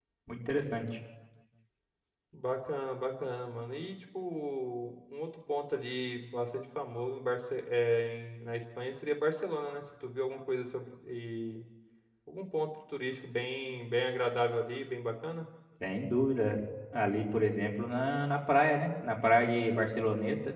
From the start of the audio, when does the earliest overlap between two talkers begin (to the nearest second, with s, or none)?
none